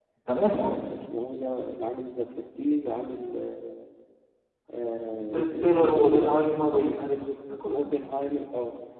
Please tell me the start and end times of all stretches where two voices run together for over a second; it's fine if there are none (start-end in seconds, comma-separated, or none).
5.2-6.5